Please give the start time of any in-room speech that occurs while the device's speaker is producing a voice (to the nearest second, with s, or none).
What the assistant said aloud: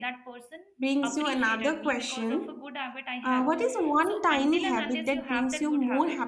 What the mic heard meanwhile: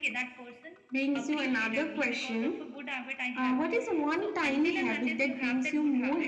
none